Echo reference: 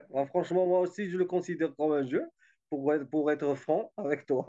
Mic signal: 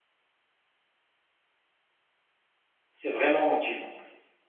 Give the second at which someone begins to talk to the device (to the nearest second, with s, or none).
3 s